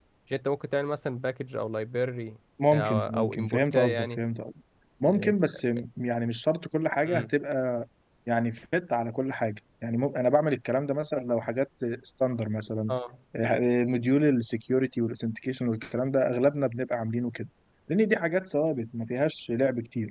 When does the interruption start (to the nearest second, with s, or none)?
3 s